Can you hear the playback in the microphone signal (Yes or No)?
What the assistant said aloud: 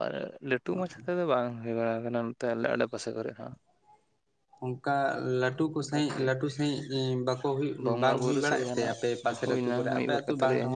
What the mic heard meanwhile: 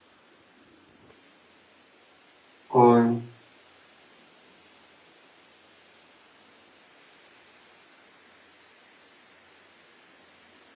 No